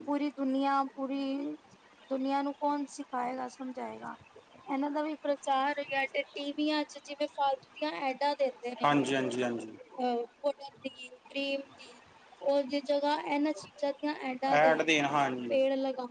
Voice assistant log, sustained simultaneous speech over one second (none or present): none